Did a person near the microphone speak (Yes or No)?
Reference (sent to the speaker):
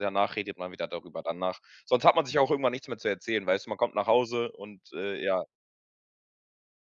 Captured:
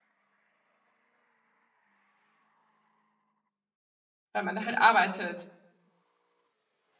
Yes